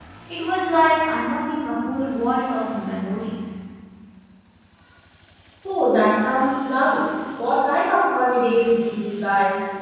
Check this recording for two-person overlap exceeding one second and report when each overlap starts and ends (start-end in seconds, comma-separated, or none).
none